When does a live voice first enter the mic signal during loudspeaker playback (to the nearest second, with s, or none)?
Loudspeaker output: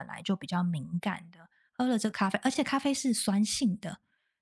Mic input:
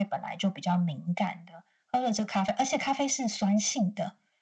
none